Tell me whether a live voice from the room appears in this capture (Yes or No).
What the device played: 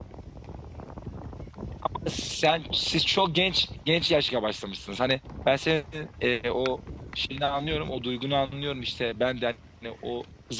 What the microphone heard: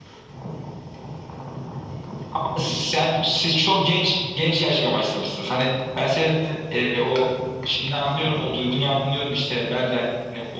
No